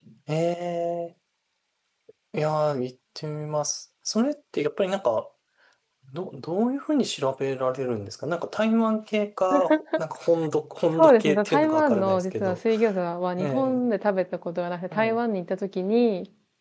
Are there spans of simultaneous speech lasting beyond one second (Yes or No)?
Yes